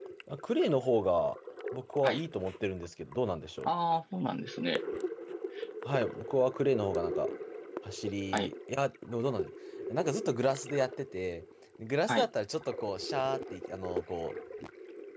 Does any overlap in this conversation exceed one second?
No

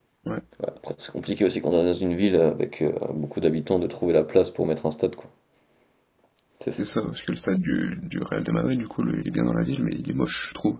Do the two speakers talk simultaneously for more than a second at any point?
No

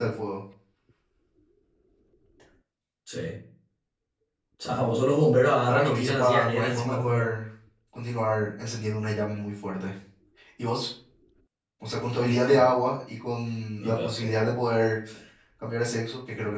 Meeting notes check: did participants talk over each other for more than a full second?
Yes, from 5.7 s

